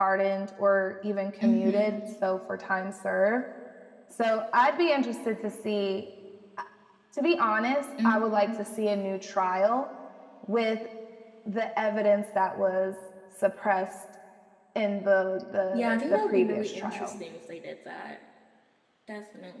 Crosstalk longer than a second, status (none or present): present